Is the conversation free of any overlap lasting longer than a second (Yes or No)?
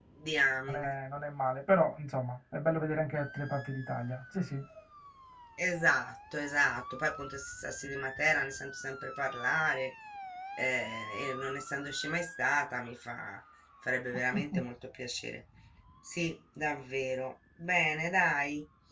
Yes